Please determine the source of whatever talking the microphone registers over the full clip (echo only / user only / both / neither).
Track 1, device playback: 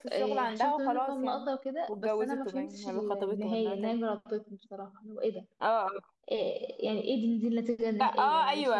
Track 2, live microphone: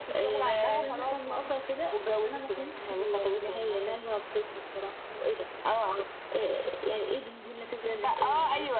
both